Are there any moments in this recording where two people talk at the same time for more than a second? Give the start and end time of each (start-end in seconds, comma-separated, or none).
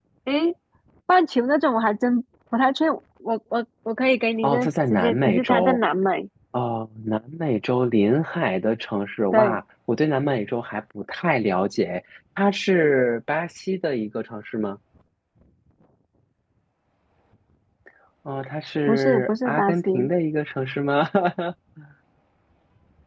4.4-5.8, 18.9-20.1